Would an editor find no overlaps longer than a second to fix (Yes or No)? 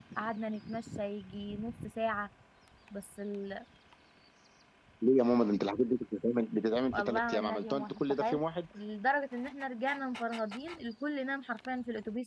No